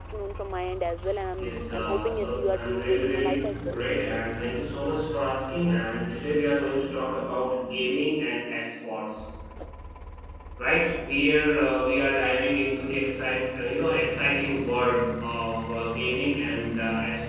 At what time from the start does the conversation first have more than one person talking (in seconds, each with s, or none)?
1.4 s